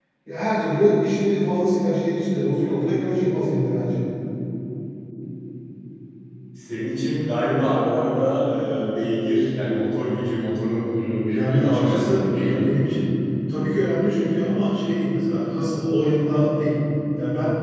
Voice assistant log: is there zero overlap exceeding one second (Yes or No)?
No